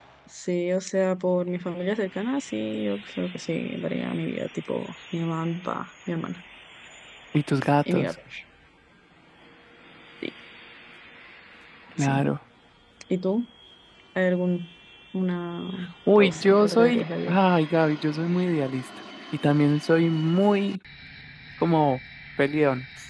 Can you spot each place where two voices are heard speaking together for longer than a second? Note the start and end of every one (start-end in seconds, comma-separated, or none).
16.1-17.4